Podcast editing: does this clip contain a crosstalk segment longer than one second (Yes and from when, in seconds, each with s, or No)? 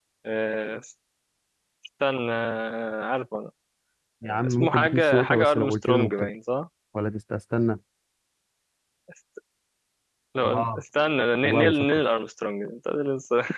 Yes, from 4.2 s